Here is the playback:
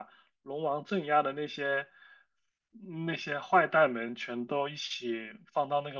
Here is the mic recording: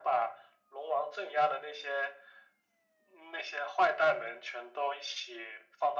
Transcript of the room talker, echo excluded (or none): none